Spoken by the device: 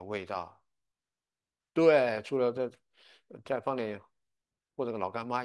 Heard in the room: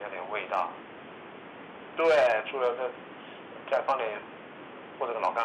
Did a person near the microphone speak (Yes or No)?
No